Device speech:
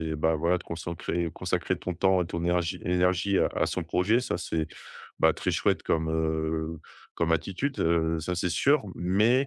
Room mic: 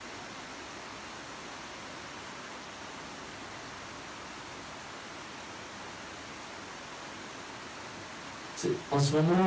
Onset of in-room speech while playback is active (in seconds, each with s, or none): 8.6 s